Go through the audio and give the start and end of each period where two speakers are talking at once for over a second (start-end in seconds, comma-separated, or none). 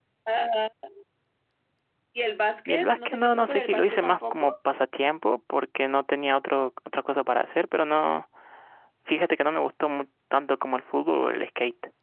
2.7-4.5